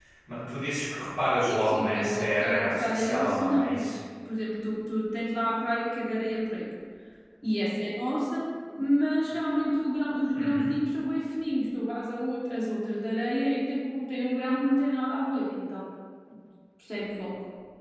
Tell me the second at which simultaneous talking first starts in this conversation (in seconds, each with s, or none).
1.4 s